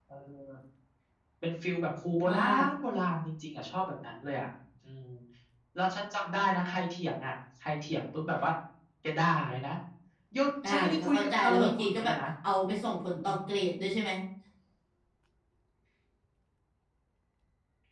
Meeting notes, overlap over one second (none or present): present